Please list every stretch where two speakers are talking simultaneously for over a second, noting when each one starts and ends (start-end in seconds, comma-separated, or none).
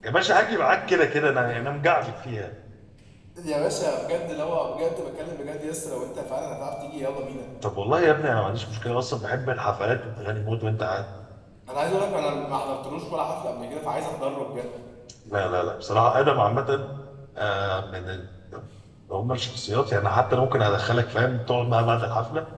none